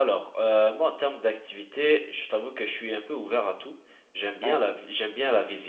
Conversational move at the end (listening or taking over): listening